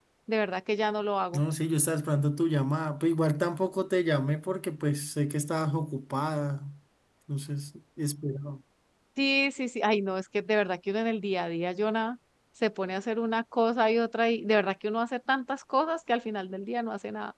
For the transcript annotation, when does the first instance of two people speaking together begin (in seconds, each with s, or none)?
none